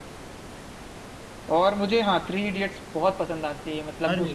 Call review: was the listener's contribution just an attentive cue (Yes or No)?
Yes